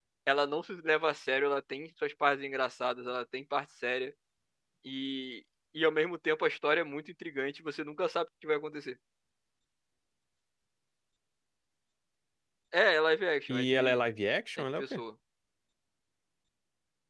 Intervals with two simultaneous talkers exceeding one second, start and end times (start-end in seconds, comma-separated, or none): none